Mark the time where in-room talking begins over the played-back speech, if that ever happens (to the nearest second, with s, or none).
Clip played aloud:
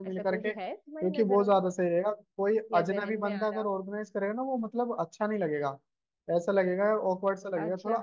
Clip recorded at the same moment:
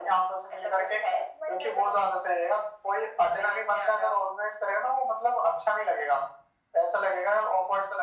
none